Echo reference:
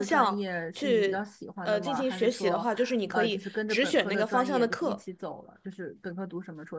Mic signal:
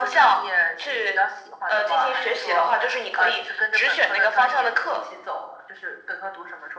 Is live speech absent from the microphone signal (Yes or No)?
Yes